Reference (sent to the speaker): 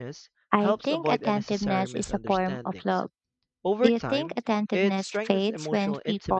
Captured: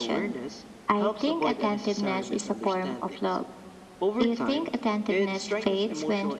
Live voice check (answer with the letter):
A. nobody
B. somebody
A